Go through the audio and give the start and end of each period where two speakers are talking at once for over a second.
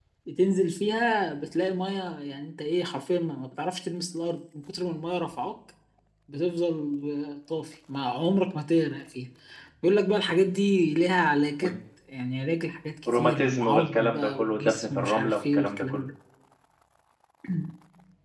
13.1-16.0

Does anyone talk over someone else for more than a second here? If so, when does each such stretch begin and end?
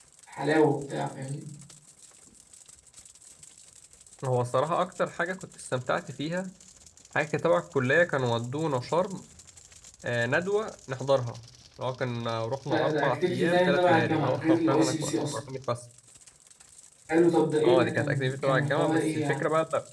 12.6-15.4, 17.6-19.4

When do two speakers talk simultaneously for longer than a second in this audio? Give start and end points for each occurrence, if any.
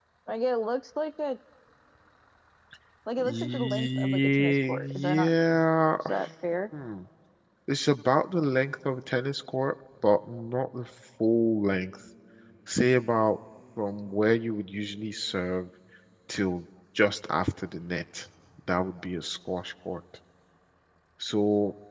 3.2-5.3

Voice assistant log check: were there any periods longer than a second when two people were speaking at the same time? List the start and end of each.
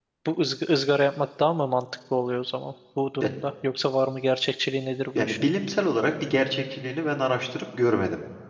none

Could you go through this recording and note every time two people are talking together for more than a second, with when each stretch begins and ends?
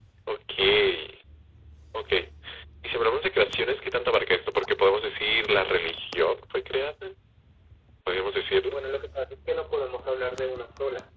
none

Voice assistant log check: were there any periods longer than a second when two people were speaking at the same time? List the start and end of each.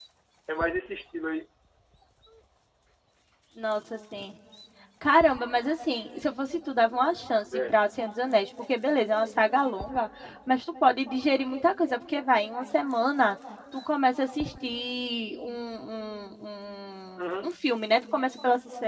none

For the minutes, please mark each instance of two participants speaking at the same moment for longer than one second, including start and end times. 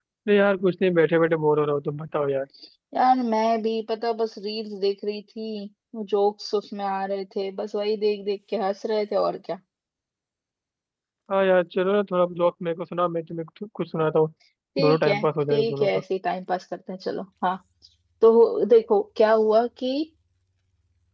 14.8-16.0

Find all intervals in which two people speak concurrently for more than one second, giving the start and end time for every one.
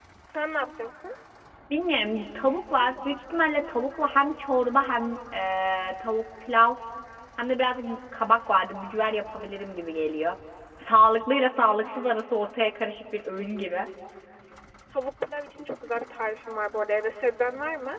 none

